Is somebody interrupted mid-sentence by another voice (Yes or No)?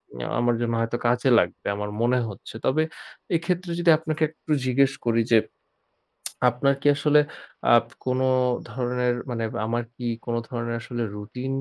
No